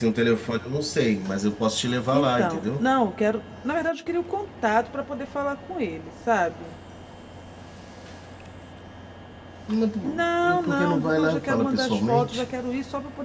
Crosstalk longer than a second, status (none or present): present